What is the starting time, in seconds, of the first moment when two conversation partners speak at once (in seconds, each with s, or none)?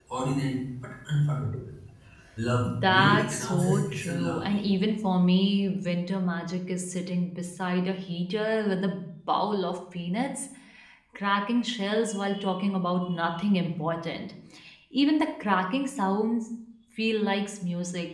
2.9 s